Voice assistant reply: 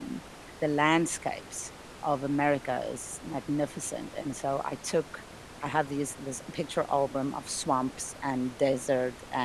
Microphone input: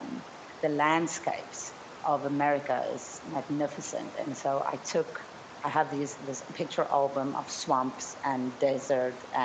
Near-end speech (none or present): none